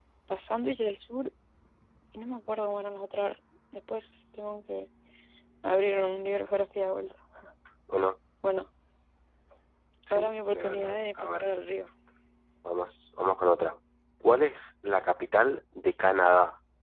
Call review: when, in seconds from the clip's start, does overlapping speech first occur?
10.1 s

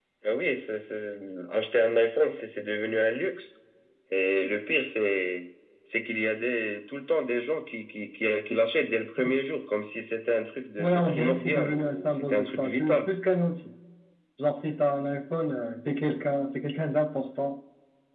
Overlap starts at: 10.8 s

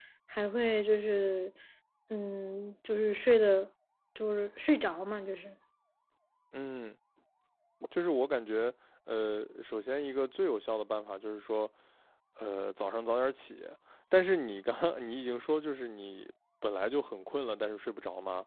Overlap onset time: none

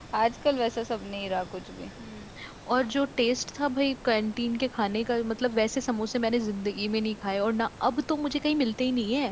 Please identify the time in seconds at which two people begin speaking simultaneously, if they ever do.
none

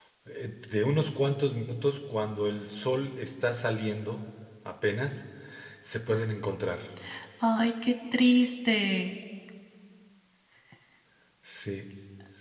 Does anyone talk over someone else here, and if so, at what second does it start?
none

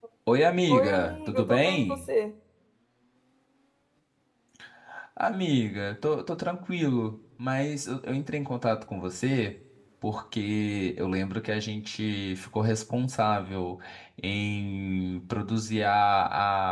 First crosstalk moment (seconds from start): 0.7 s

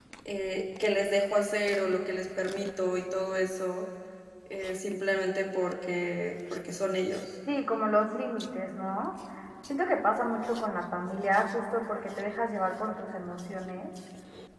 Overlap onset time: none

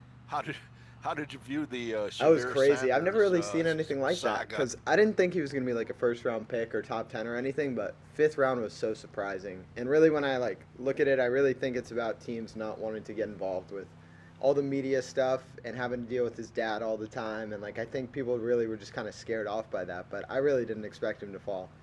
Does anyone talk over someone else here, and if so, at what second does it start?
2.2 s

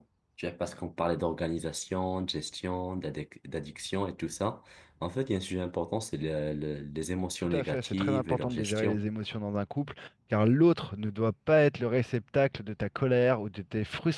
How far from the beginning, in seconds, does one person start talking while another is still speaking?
7.4 s

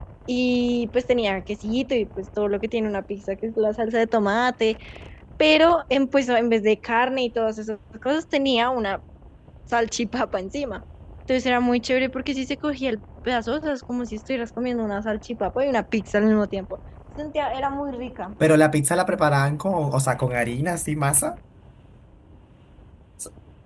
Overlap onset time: none

